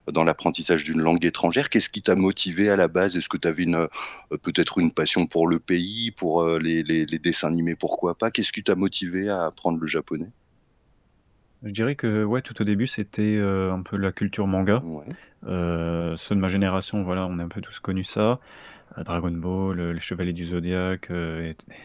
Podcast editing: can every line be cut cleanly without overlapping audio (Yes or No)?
Yes